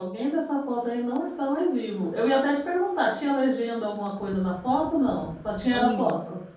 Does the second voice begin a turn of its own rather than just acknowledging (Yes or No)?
Yes